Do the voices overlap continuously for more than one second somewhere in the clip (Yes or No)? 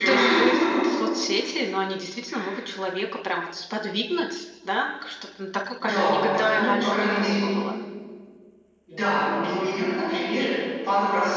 Yes